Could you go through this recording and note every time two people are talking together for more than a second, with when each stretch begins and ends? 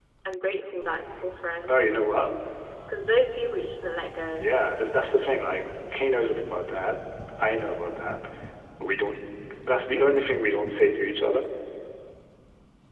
none

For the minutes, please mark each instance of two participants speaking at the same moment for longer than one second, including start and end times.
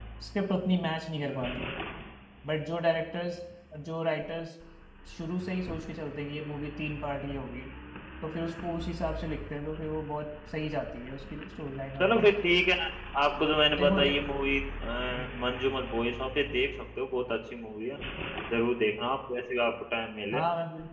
none

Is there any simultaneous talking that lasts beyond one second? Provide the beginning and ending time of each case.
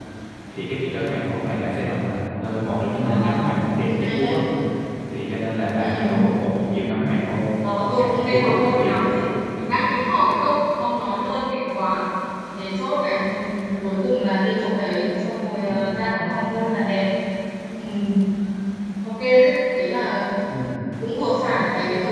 8.0-9.2

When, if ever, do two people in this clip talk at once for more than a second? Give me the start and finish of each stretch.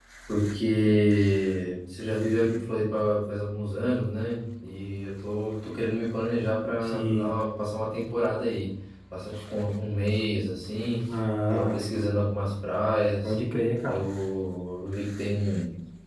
none

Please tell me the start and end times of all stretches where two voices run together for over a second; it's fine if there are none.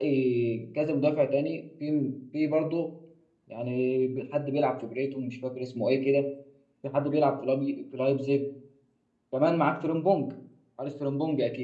none

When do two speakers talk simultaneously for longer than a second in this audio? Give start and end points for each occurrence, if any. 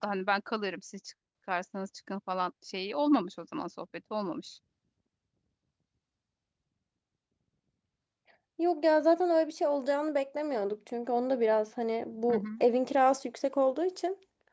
none

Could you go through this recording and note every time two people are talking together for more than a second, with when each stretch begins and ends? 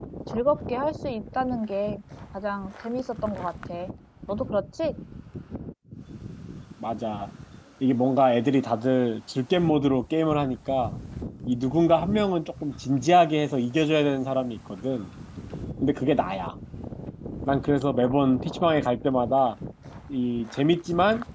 none

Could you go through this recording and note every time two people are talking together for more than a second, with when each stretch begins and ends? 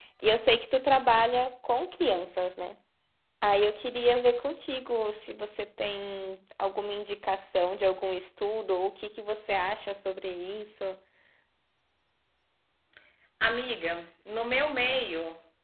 none

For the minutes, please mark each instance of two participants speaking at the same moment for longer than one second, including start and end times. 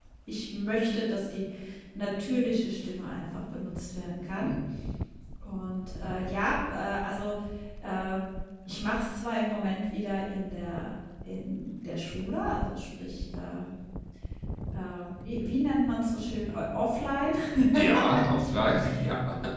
none

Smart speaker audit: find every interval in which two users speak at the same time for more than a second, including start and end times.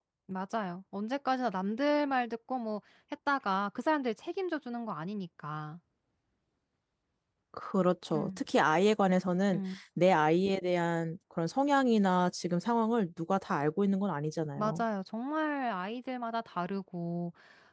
none

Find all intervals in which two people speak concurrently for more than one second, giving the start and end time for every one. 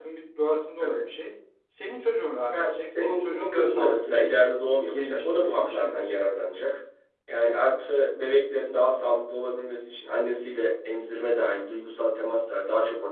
2.5-6.2

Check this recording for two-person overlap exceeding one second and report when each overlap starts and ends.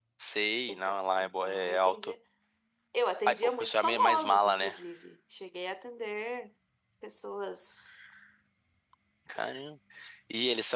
0.7-2.1, 3.2-4.8

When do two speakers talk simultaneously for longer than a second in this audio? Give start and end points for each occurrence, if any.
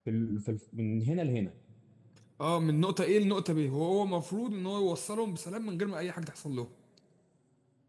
none

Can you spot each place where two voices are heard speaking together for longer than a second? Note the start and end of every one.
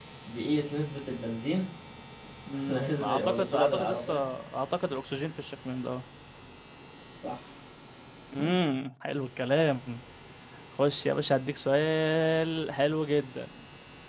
2.7-4.1

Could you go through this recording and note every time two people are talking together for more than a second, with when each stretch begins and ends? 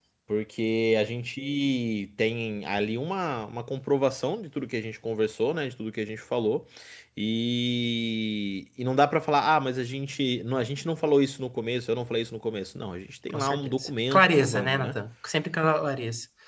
13.3-15.0

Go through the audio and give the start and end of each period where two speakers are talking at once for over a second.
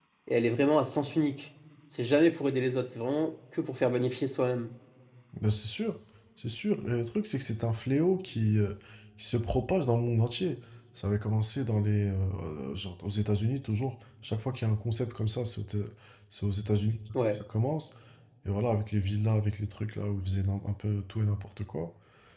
none

